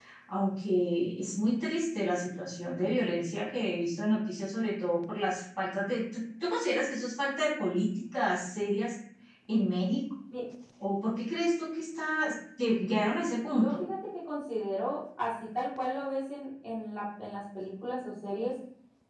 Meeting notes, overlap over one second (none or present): none